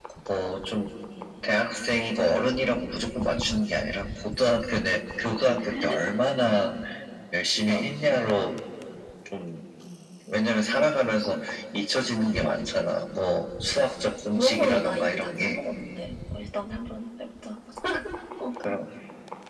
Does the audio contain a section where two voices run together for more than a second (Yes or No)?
Yes